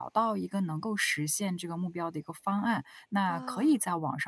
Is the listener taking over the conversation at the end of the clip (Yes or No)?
No